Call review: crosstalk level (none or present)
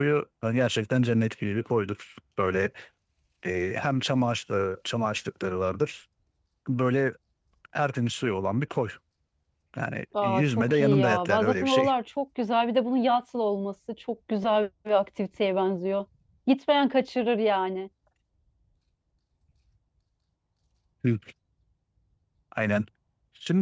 present